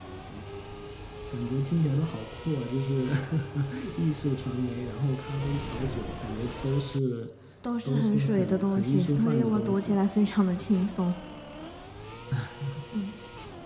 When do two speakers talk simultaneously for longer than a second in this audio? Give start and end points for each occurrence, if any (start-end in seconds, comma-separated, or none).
7.8-10.0